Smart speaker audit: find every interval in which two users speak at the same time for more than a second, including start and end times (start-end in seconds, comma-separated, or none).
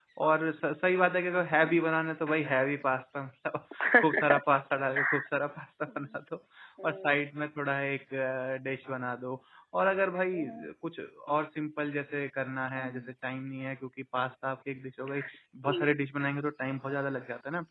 none